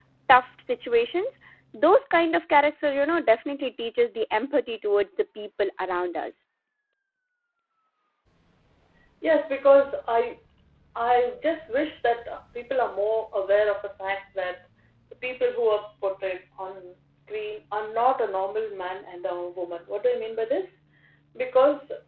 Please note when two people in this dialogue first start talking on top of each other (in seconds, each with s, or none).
none